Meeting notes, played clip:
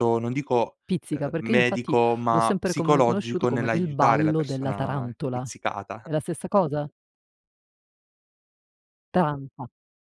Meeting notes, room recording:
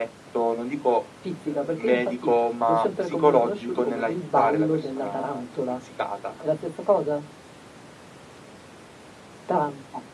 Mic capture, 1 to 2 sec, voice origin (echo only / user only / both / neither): echo only